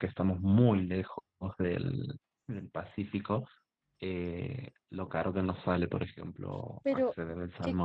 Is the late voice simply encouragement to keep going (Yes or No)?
No